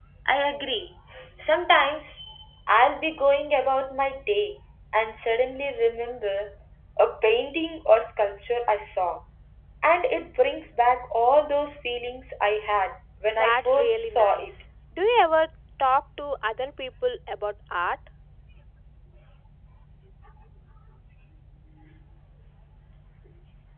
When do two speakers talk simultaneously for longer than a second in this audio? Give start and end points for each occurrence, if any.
13.3-14.5

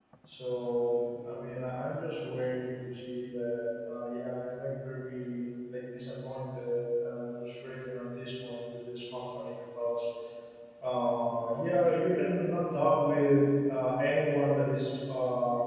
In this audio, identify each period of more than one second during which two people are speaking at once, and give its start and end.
none

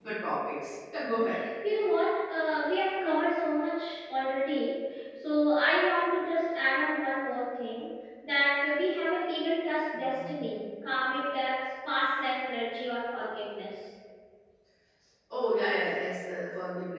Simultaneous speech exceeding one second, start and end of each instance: none

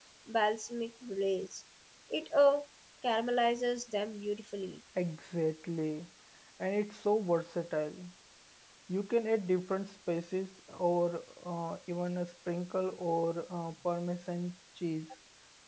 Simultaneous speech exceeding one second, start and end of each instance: none

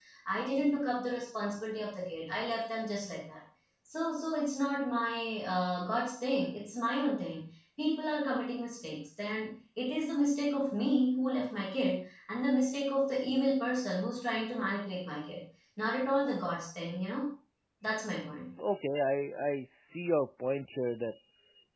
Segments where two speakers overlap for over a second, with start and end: none

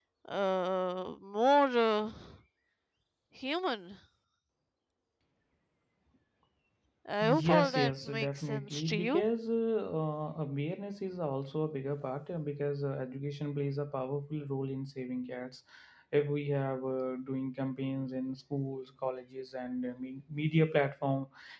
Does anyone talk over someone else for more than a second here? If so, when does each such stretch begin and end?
7.2-9.2

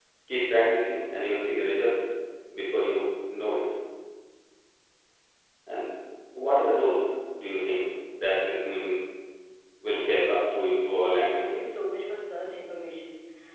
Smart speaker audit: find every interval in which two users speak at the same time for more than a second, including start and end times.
10.3-11.6

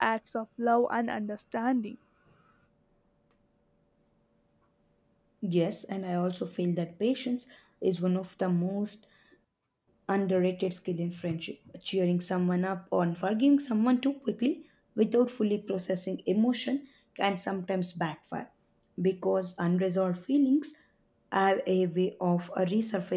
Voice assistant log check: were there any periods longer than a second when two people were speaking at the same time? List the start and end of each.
none

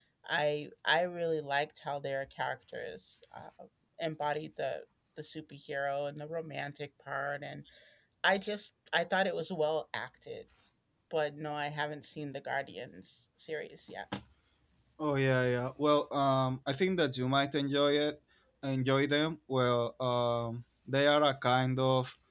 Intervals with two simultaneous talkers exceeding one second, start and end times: none

